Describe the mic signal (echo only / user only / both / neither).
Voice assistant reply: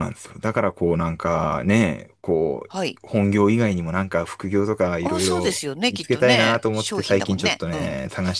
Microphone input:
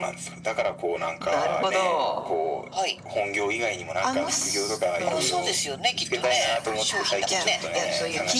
both